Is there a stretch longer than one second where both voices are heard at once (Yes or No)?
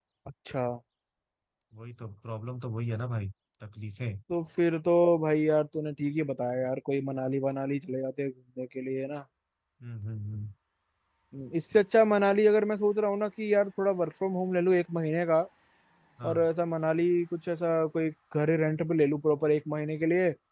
No